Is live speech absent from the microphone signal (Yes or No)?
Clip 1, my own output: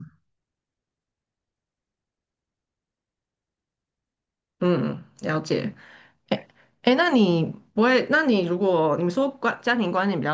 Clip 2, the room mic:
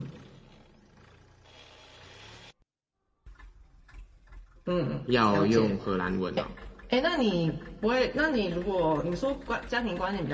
No